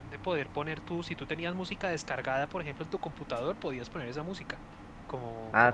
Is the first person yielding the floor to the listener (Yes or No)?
Yes